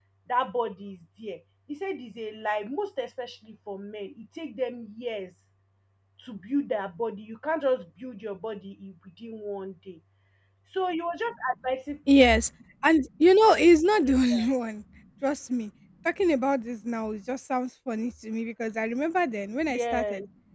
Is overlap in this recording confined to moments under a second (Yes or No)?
Yes